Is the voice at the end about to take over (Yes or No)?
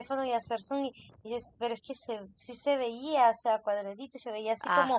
No